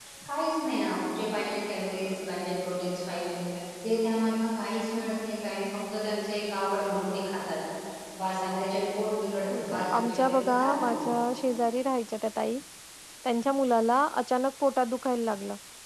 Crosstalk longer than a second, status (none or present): present